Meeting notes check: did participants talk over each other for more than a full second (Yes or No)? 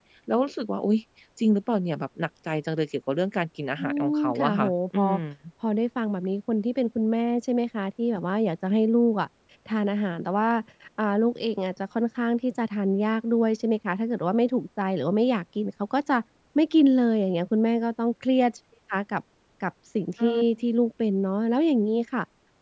Yes